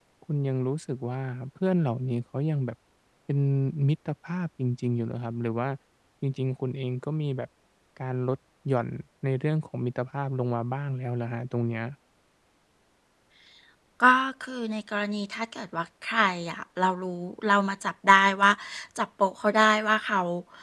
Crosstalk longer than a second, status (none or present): none